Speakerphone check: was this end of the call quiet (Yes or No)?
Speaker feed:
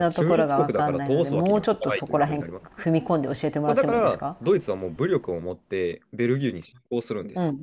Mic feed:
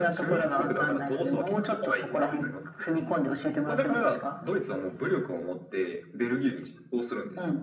Yes